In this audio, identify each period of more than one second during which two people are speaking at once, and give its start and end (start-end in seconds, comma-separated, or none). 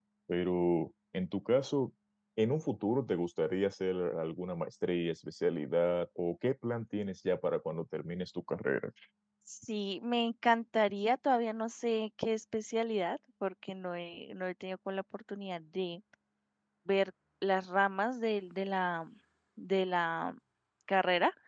none